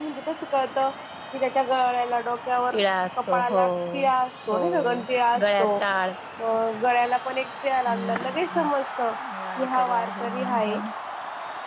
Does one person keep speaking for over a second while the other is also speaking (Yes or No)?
Yes